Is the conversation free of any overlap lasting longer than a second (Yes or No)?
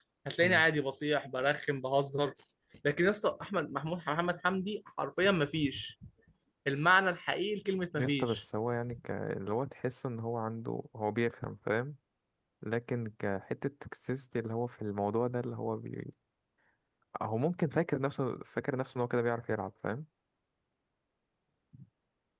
Yes